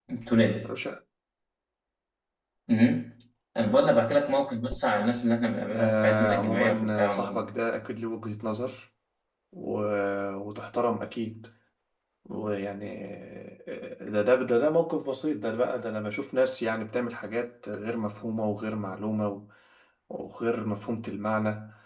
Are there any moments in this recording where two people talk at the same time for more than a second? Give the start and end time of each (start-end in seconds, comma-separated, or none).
5.8-7.5